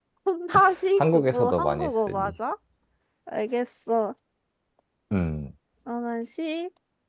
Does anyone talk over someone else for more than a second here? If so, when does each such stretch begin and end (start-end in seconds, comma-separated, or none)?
1.0-2.3